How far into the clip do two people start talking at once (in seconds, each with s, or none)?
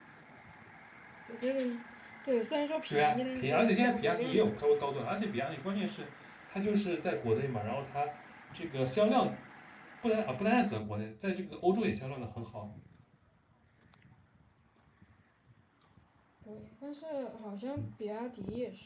2.9 s